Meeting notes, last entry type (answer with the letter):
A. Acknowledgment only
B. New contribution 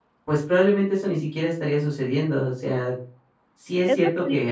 B